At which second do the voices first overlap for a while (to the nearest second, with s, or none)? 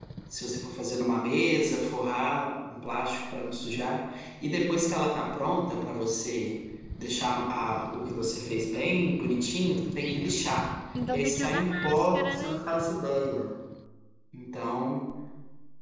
11 s